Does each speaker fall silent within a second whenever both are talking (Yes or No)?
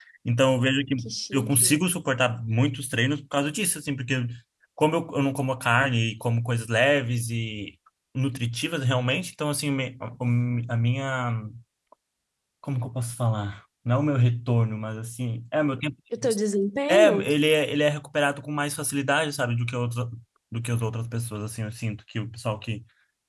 Yes